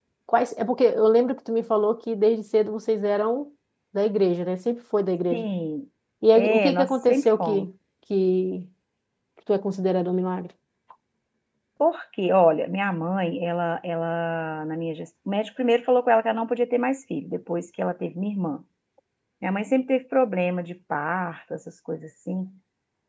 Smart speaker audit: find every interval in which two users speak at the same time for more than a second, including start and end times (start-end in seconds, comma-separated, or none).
6.4-7.6